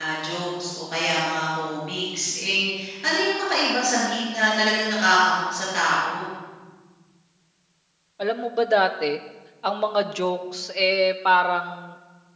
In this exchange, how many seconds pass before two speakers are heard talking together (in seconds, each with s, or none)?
none